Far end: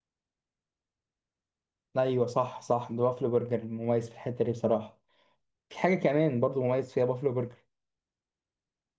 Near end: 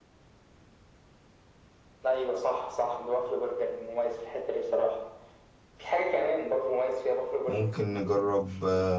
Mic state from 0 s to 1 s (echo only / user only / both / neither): neither